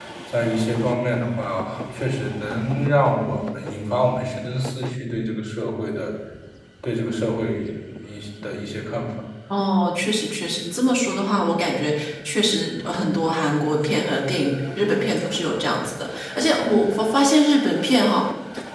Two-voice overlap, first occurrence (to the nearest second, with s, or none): none